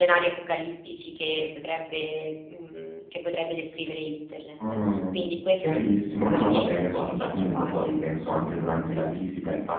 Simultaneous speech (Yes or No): Yes